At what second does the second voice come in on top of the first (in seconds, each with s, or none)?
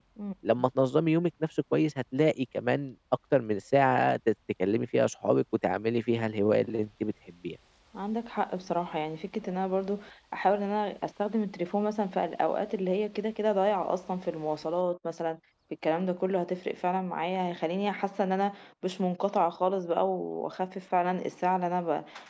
none